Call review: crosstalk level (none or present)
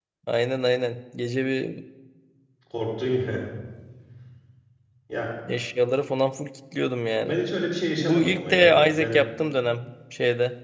present